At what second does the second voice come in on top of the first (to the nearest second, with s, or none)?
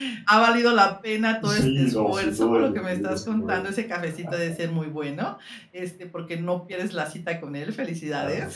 1 s